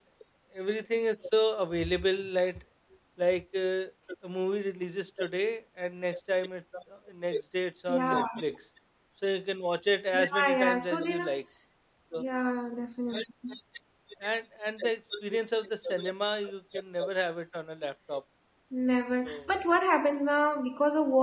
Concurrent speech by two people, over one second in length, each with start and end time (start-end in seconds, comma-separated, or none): 10.1-11.4